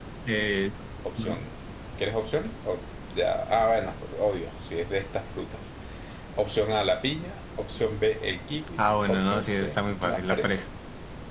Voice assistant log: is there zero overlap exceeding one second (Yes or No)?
No